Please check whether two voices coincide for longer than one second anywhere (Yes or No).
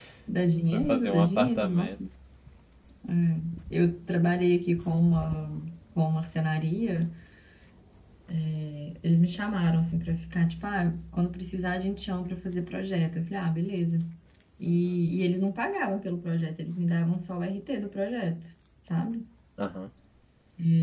Yes